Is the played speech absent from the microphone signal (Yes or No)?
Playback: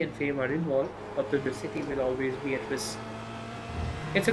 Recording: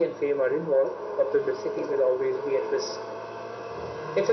No